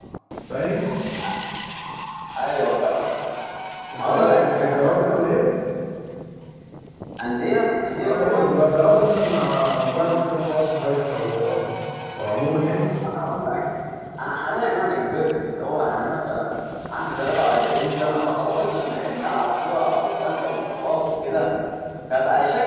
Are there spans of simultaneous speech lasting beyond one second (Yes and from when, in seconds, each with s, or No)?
Yes, from 4.0 s